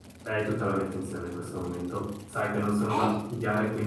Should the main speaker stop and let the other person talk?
No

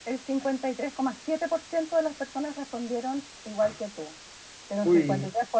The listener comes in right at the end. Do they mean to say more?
No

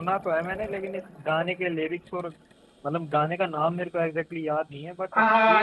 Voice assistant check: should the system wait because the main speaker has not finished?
No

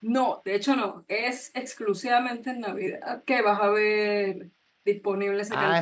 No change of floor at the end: No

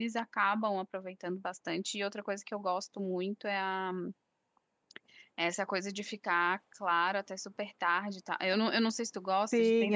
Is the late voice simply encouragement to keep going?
No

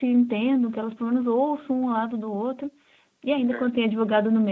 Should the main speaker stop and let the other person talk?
No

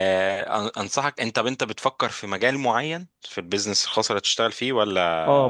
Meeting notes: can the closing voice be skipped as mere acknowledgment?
No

